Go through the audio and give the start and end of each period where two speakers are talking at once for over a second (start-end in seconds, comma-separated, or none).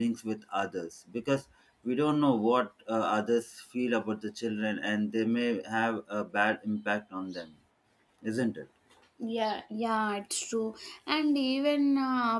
none